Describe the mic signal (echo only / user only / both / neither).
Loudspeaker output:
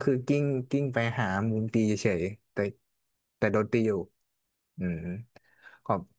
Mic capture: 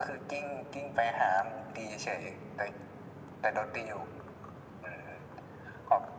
echo only